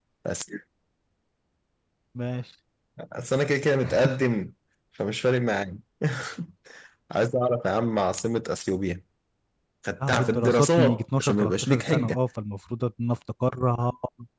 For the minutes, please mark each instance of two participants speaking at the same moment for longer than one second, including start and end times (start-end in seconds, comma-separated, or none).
10.1-12.2